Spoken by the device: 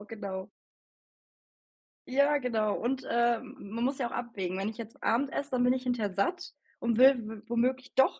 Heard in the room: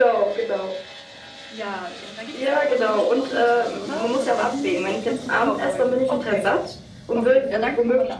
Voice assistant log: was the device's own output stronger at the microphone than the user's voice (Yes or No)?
Yes